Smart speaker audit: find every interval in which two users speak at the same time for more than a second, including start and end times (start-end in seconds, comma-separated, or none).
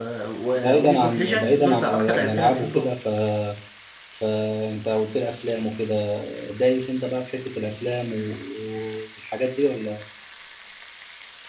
0.5-2.8